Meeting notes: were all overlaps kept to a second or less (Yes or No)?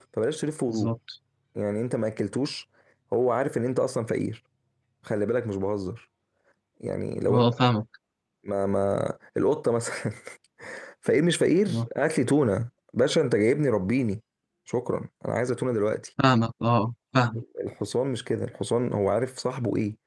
Yes